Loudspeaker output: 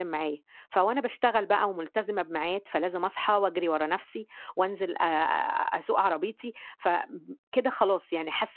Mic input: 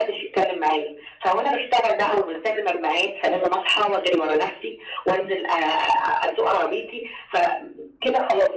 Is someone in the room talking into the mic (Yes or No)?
No